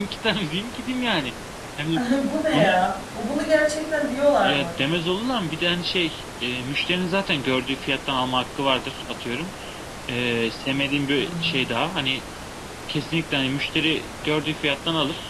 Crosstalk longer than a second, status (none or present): none